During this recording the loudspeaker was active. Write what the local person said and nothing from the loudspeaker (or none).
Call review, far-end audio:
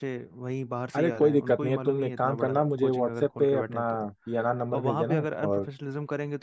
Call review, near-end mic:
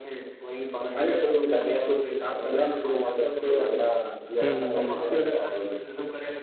हम्म हम्म हम्म